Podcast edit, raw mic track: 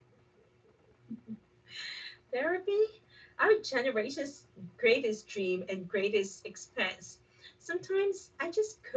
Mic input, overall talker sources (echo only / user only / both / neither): user only